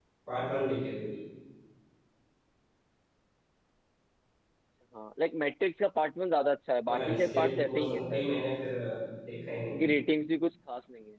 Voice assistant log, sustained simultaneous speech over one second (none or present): present